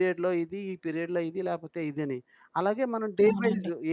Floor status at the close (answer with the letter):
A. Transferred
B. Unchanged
B